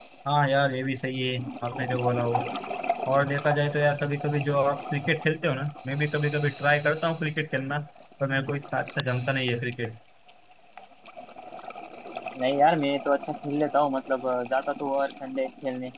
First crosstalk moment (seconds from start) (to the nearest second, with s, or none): none